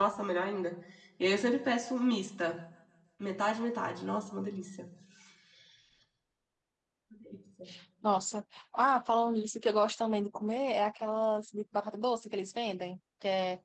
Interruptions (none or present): none